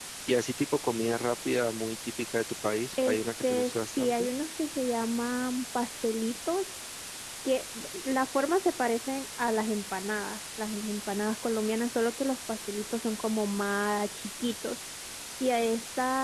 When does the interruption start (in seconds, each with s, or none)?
3.0 s